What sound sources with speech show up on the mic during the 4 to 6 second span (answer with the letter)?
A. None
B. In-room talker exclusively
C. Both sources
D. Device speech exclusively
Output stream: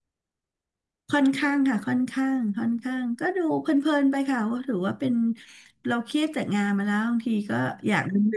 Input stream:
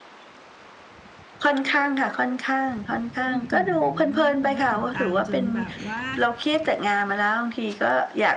C